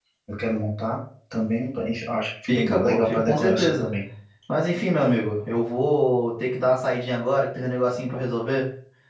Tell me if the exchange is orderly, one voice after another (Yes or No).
No